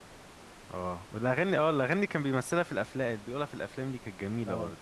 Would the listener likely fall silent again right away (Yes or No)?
No